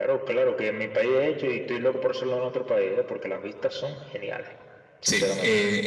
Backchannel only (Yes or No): No